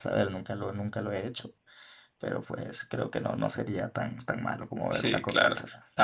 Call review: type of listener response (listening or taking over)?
taking over